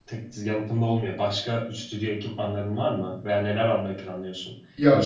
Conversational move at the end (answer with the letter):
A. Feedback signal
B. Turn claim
A